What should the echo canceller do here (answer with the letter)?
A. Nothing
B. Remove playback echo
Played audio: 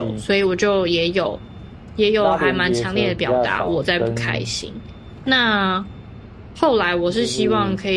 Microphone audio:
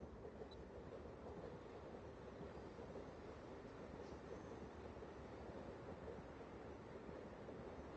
A